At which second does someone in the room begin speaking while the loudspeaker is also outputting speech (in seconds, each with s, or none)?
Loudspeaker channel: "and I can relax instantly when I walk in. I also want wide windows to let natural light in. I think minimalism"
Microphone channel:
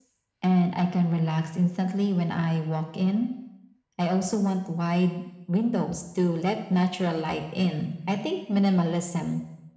none